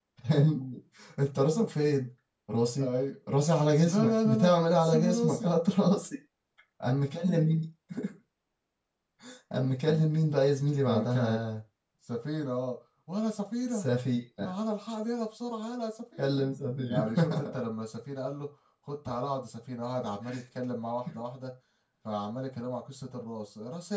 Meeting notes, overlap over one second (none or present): present